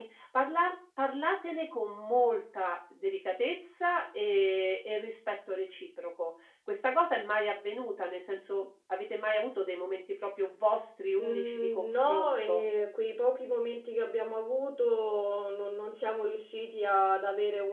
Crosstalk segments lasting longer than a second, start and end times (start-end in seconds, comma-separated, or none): 11.2-12.6